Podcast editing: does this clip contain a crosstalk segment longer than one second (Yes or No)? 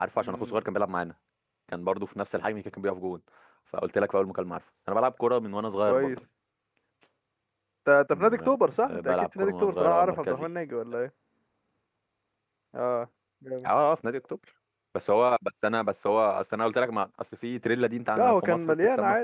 Yes